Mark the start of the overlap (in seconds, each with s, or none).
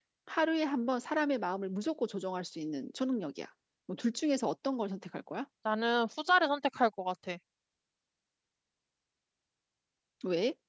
none